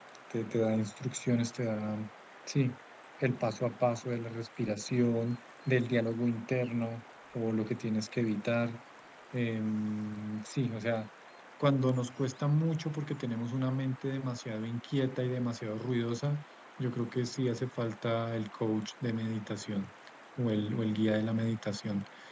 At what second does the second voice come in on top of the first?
none

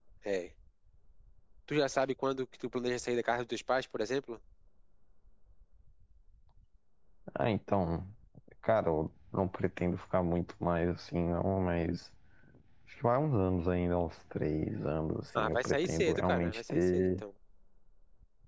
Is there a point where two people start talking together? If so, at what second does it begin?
15.4 s

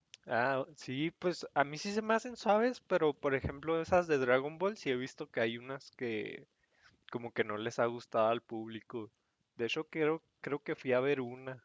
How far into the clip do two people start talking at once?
none

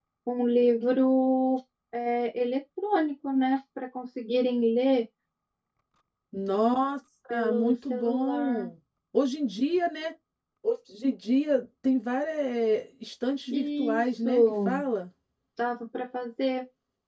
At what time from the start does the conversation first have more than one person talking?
7.3 s

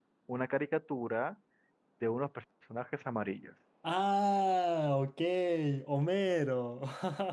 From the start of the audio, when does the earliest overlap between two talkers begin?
none

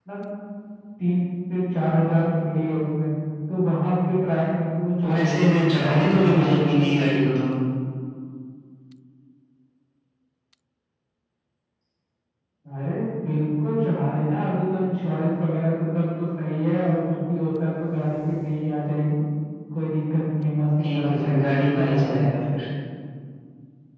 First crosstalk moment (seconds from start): 5.0 s

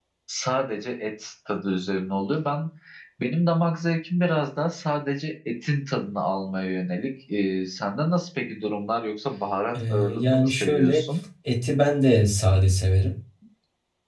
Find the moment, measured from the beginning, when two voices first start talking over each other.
9.8 s

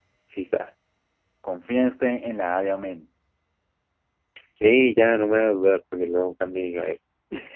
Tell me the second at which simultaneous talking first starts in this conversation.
none

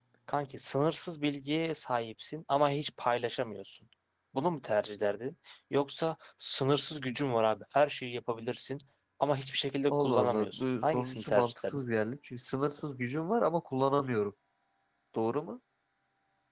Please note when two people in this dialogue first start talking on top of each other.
9.9 s

